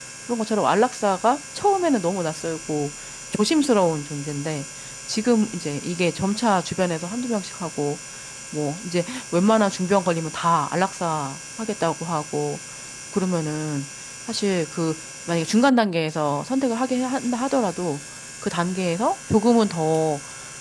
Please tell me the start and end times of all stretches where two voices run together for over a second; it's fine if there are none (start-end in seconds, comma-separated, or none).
none